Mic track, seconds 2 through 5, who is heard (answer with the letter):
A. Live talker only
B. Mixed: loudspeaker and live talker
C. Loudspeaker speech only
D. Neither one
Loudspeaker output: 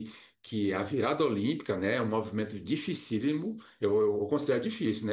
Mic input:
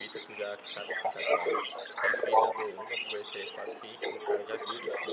B